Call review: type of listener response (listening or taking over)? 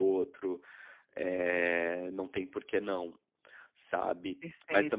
listening